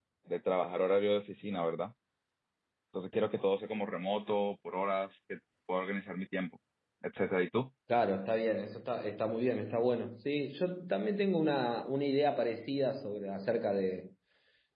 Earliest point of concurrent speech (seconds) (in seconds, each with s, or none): none